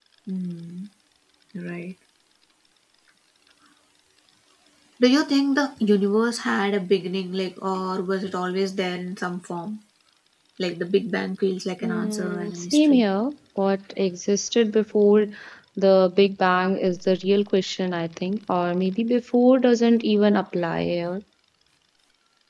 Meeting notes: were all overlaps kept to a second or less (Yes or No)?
No